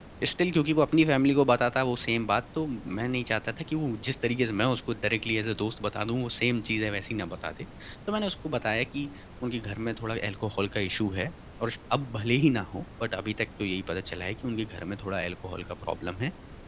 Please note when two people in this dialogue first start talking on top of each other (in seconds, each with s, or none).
none